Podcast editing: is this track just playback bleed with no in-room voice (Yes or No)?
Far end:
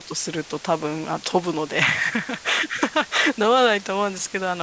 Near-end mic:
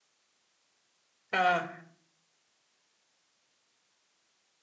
No